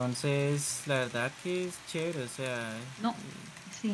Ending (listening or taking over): taking over